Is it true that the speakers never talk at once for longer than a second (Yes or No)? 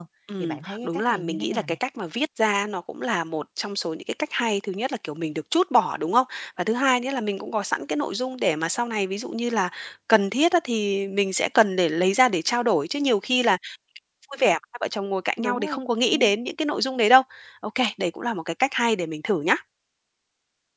No